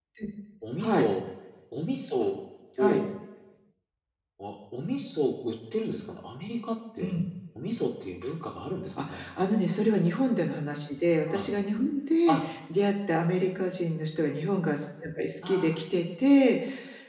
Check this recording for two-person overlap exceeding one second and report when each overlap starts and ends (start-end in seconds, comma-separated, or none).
none